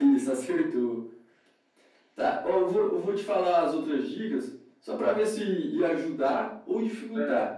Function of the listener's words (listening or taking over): listening